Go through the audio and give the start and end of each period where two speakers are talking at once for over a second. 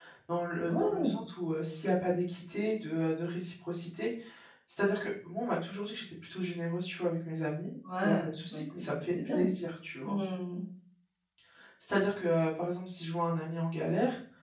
8.0-9.5

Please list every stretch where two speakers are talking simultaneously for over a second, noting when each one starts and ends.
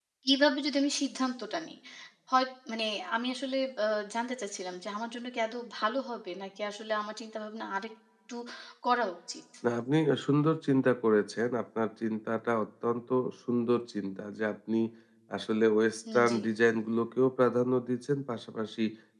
none

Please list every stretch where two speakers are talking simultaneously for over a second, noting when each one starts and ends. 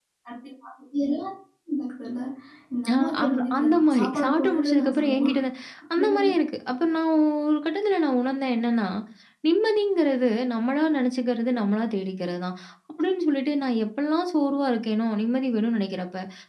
2.9-5.4

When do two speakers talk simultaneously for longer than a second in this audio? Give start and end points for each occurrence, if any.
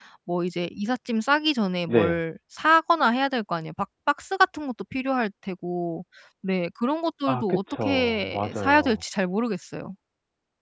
7.3-9.0

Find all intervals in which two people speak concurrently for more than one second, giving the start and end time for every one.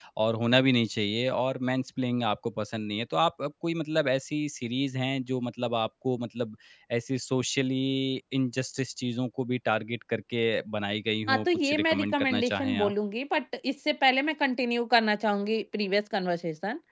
11.3-12.9

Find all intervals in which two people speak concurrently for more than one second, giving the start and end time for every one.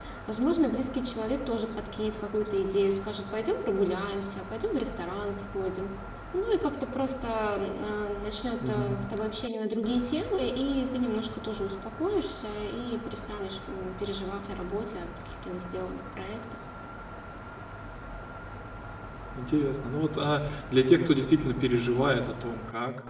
none

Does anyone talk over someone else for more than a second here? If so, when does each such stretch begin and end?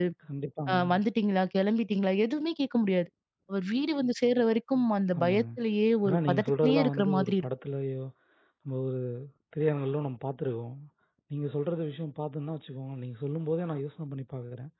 6.0-7.5

